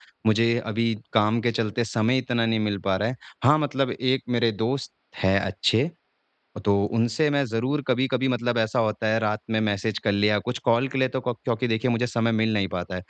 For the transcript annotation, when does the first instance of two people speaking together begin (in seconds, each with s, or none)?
none